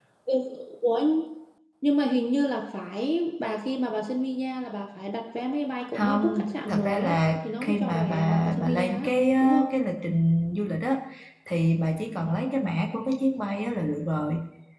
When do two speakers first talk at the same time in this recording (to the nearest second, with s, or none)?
6 s